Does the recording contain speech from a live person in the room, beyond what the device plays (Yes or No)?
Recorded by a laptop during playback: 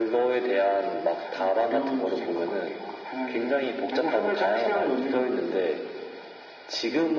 No